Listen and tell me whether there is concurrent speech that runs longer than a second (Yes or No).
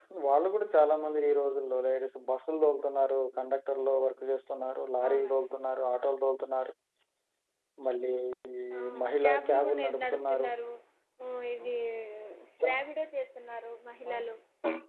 Yes